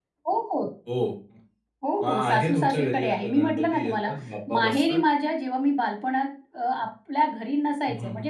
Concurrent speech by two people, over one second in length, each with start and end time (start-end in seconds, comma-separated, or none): 2.0-4.1